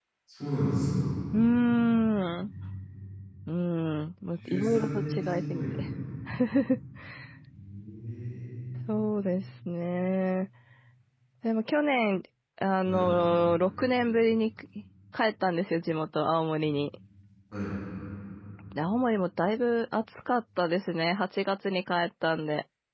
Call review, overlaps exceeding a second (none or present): present